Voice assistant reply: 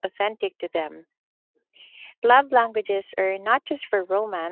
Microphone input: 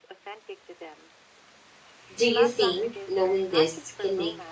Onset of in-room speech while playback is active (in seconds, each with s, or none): 2.1 s